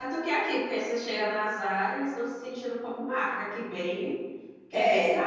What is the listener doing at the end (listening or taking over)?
taking over